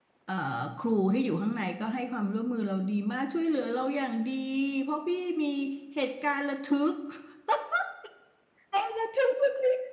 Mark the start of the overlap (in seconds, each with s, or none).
none